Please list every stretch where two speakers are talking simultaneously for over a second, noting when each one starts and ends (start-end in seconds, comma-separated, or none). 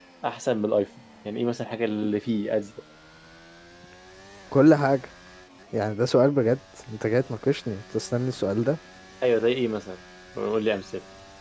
none